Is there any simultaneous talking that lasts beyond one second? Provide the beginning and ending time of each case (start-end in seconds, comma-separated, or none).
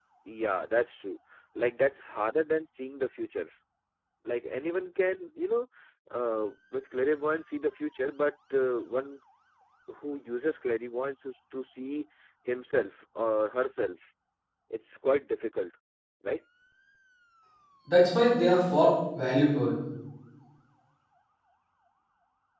none